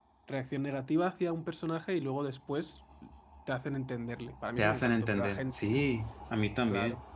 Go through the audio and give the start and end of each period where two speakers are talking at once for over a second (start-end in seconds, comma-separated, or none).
4.6-5.8